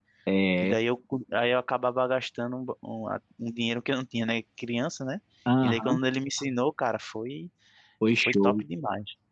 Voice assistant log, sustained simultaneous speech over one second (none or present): none